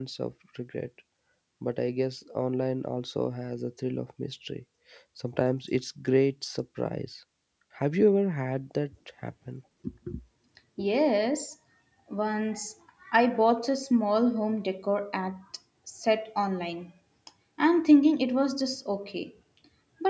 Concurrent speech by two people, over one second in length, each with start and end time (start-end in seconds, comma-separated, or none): none